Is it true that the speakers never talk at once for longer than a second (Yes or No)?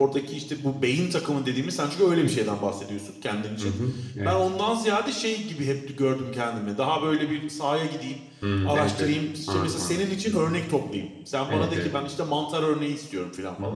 No